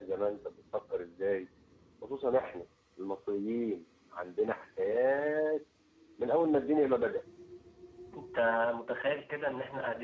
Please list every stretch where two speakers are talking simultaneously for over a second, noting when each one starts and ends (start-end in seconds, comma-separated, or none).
none